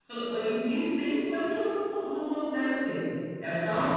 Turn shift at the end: Yes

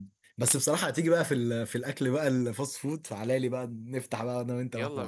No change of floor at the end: No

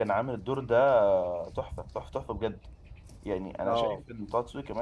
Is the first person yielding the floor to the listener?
No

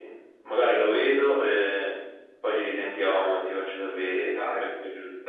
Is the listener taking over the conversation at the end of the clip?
Yes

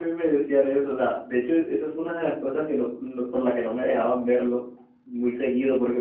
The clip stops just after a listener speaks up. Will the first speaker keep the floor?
Yes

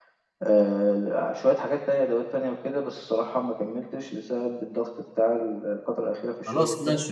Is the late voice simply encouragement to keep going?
No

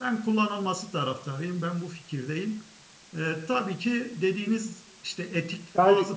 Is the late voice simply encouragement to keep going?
Yes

